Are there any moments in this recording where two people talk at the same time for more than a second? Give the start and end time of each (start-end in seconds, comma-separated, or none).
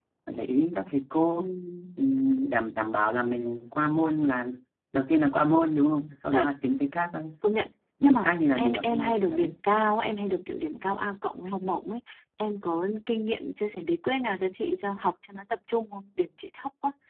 8.0-9.5